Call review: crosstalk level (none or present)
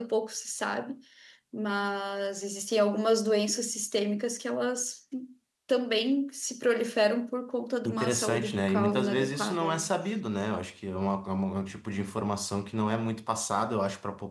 present